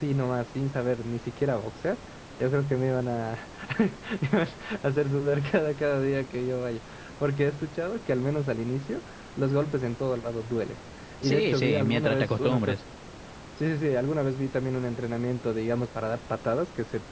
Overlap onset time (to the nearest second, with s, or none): 11 s